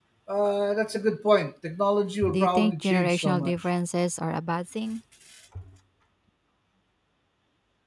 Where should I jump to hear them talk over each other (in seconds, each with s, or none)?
2.2 s